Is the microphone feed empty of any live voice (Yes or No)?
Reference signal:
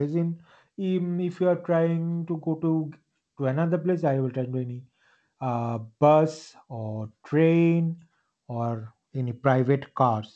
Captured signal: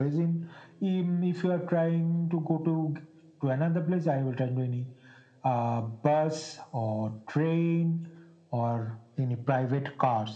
Yes